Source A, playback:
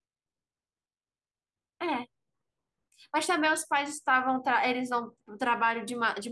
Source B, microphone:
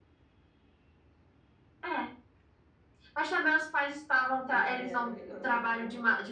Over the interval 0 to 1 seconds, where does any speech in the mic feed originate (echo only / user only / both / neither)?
neither